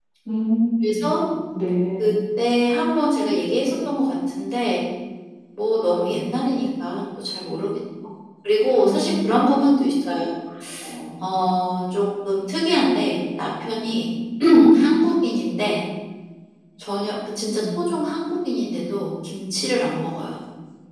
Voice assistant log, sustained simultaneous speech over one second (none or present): none